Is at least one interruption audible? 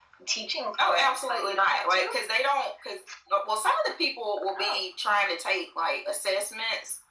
Yes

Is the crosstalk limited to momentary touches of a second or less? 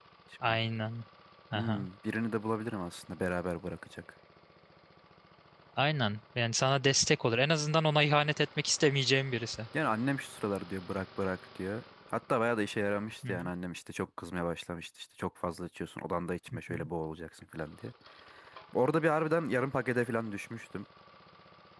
Yes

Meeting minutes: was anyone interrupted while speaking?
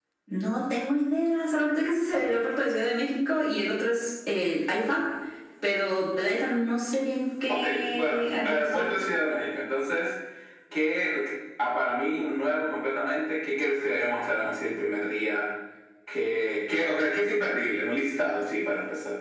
Yes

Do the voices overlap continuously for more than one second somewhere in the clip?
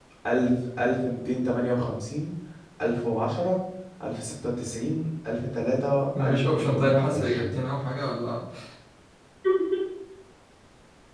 Yes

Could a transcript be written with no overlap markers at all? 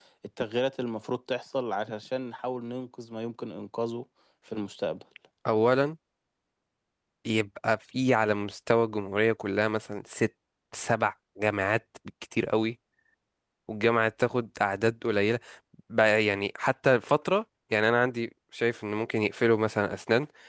Yes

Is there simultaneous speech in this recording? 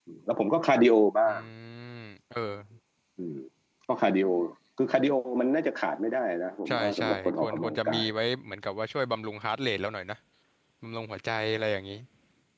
Yes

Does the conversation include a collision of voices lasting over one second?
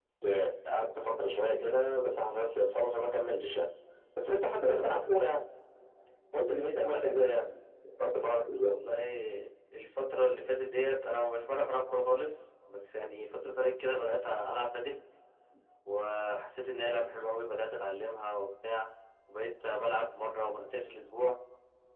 No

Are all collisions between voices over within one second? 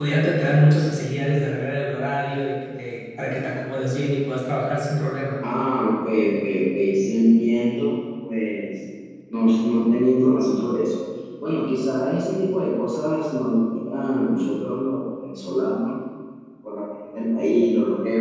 Yes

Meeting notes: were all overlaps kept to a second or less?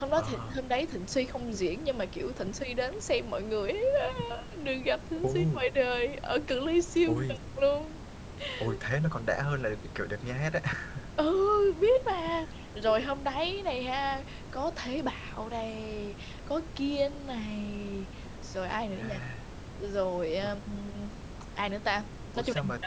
Yes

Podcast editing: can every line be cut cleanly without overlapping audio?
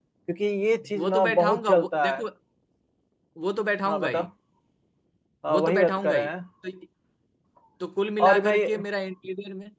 No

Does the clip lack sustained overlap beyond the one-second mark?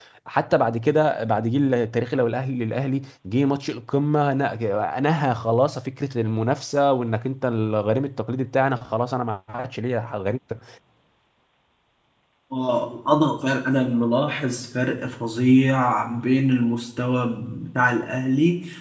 Yes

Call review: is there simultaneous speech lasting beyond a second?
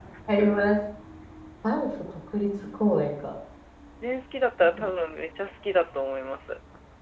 No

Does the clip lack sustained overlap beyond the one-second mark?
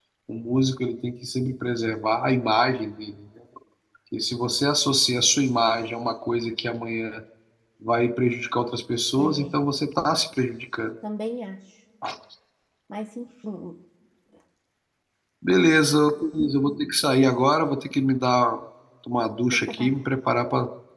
Yes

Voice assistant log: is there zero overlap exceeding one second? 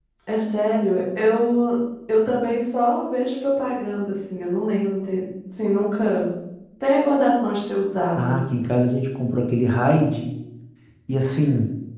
Yes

